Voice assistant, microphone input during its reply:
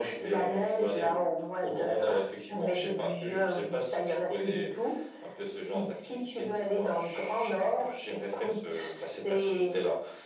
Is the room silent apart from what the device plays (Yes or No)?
Yes